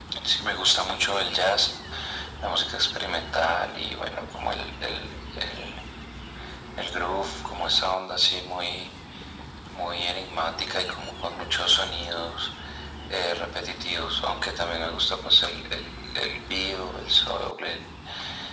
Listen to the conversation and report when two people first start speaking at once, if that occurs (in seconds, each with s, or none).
none